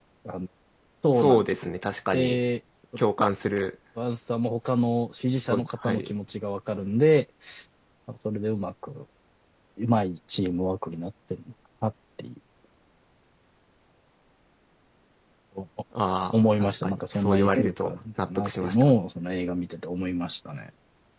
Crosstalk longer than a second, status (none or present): present